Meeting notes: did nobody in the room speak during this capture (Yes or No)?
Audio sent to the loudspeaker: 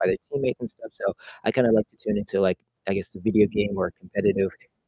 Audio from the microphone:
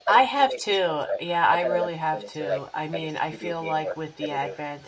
No